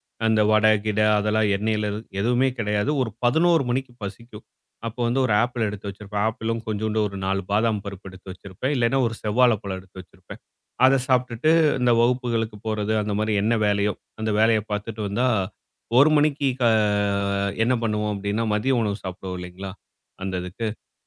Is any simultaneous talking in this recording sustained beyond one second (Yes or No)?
No